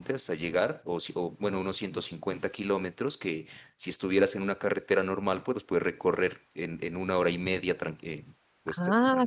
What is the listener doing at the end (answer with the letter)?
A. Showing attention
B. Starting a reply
B